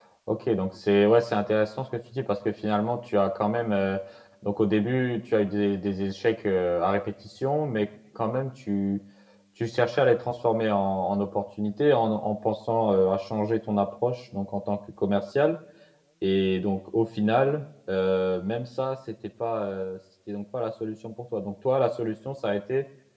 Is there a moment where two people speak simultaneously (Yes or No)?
No